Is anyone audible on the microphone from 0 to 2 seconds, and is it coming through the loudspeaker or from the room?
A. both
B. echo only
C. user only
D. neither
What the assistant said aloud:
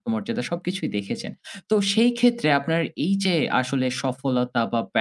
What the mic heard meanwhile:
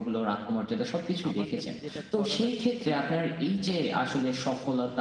A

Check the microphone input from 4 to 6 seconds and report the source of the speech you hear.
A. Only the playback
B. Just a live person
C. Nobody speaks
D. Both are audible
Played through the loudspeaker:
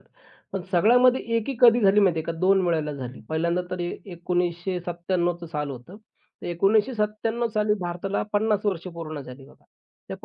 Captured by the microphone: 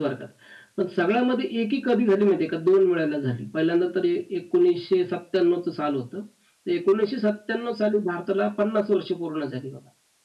A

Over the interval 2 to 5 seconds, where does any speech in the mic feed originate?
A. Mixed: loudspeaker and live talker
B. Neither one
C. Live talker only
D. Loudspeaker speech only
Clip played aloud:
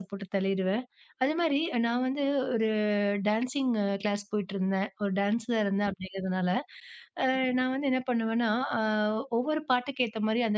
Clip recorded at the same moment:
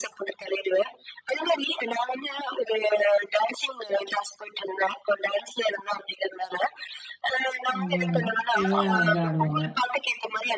D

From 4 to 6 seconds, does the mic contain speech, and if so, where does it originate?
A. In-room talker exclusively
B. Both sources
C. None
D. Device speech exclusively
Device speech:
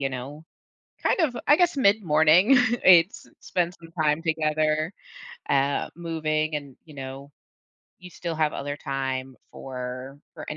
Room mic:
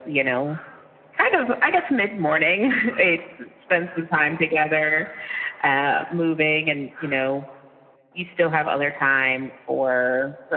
D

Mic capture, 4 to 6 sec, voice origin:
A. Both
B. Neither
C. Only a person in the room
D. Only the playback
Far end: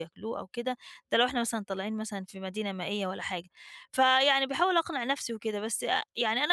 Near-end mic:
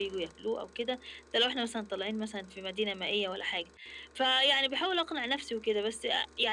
D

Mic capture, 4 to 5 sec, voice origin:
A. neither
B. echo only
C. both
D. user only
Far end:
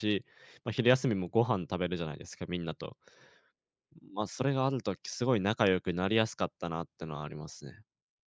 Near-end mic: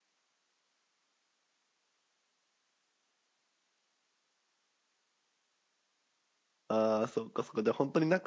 A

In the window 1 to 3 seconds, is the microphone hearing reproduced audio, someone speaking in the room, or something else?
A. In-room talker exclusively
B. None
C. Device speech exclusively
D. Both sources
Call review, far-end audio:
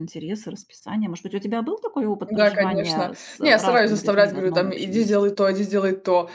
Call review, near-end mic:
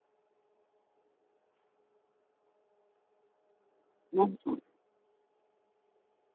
B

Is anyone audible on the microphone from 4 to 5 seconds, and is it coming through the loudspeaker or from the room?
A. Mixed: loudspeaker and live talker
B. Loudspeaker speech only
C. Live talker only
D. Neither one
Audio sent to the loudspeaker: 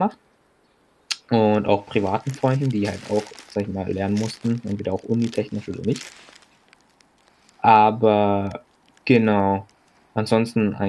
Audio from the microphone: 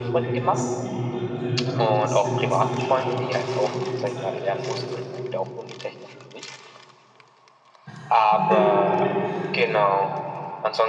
A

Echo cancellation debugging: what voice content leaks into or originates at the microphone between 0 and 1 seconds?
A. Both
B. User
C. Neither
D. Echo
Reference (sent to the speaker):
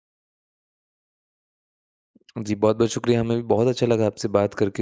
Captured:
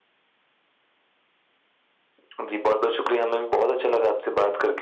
C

